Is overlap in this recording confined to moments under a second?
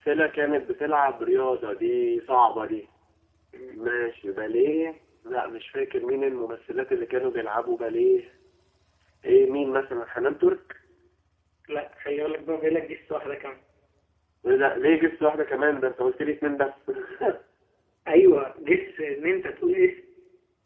Yes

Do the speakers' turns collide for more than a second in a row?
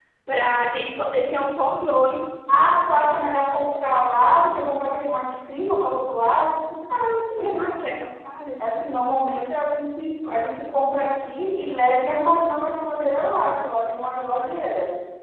No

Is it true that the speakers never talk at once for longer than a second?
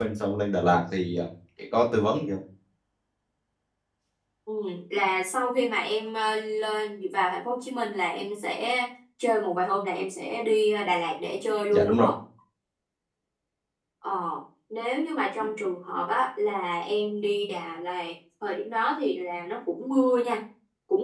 Yes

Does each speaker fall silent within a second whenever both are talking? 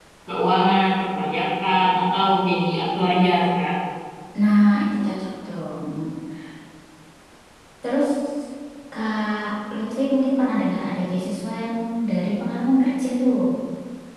Yes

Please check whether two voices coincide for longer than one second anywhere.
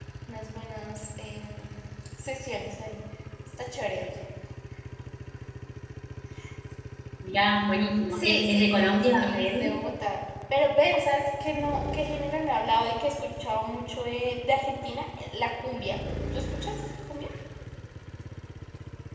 Yes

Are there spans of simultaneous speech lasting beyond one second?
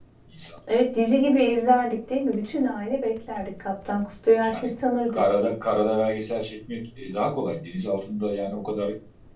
No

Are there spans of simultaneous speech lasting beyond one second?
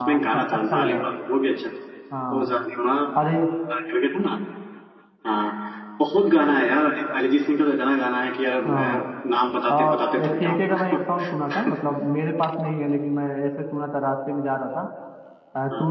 Yes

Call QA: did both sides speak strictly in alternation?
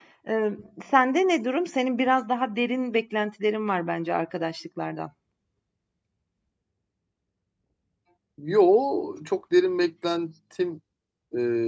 Yes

